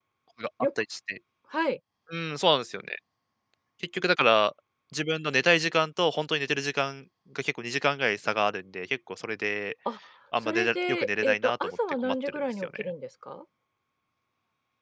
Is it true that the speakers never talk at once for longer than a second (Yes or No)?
No